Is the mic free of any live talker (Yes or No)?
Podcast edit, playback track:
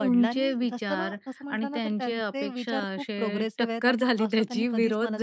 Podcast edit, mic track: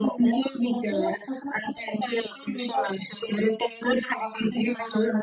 Yes